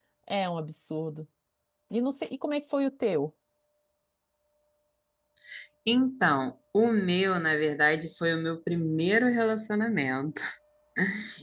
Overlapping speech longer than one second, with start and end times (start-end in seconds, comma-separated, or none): none